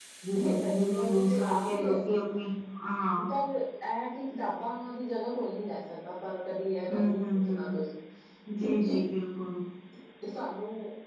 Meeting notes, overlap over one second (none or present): present